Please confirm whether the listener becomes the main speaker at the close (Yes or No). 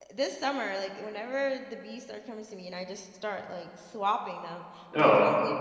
No